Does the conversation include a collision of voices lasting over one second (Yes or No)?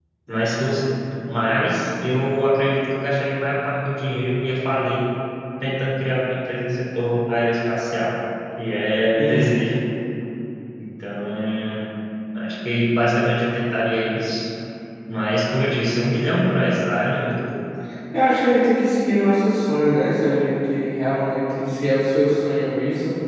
No